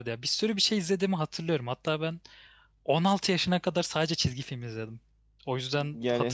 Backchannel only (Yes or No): No